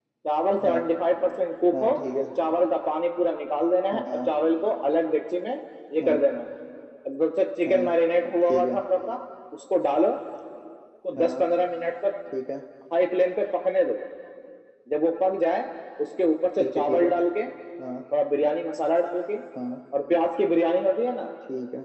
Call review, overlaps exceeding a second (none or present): none